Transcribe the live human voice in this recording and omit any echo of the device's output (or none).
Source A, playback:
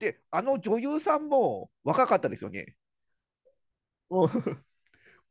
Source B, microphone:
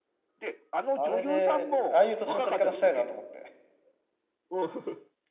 あれで、ああいう年の取り方したいなと思って。